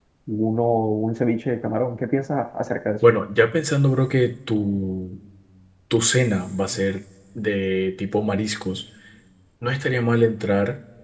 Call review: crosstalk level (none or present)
none